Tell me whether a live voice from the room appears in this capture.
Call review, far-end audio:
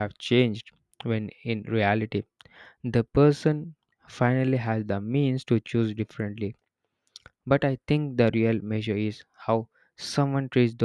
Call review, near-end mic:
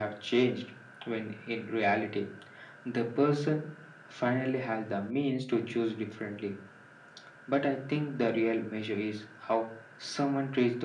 No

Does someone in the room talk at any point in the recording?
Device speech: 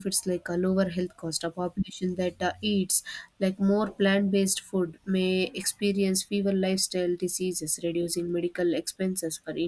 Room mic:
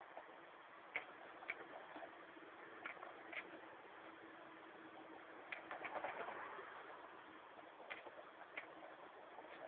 No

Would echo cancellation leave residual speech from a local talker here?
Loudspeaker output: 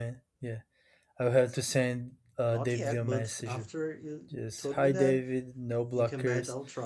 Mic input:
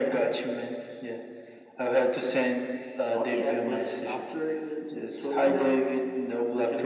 No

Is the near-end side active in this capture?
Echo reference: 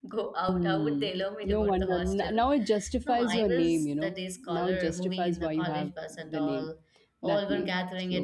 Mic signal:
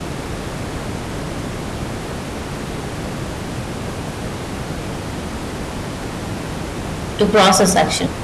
Yes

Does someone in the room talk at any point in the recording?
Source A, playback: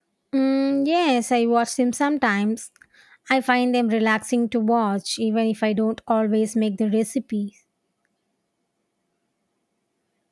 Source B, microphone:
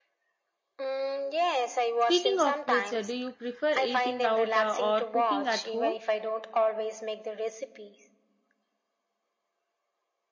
Yes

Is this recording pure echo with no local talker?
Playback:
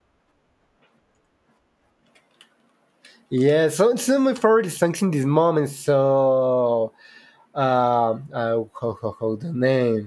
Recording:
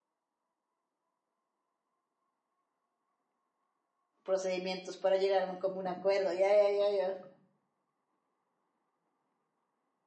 No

